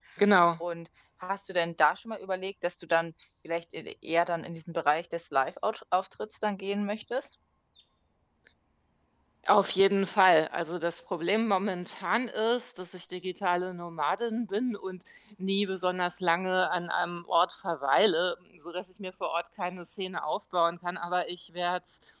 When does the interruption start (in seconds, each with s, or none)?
none